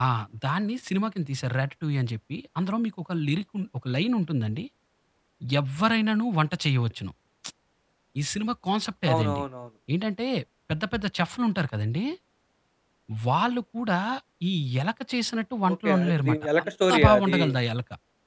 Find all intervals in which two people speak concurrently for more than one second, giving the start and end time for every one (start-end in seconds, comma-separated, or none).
15.7-17.4